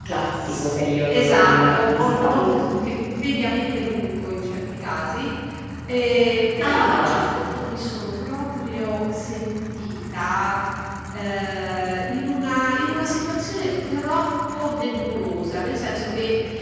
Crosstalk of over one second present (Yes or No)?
Yes